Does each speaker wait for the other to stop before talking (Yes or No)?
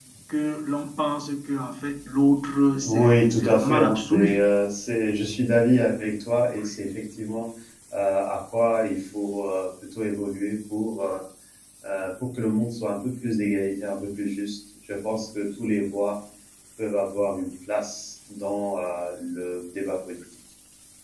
No